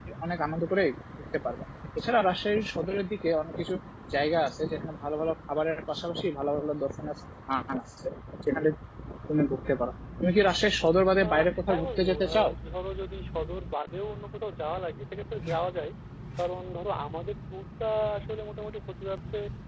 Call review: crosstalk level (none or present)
present